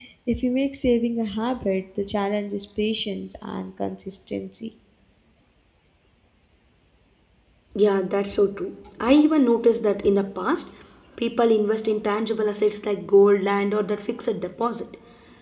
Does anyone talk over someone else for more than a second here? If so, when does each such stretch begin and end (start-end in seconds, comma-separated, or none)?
none